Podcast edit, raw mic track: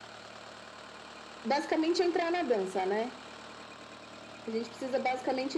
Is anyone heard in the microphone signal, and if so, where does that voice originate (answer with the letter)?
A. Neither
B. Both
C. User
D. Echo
D